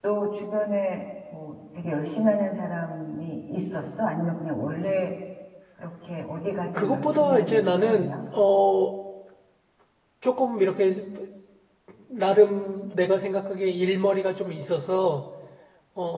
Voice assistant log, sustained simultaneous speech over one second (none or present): present